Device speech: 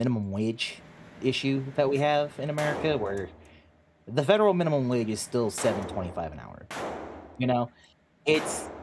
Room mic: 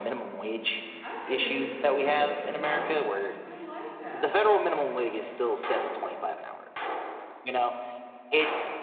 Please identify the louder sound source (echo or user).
echo